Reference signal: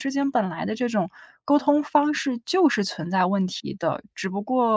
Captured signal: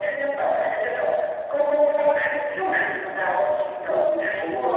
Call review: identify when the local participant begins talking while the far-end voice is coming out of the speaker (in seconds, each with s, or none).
3.9 s